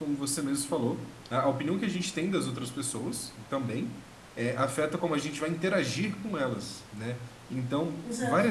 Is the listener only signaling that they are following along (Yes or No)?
Yes